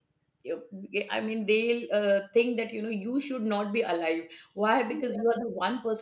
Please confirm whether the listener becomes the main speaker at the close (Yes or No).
No